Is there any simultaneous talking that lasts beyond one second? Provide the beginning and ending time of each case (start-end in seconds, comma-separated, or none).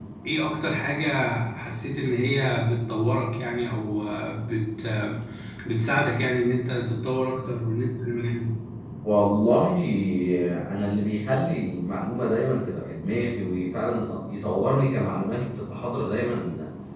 none